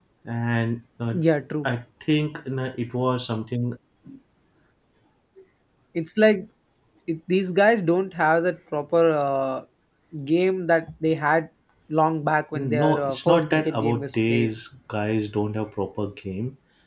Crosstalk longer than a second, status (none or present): present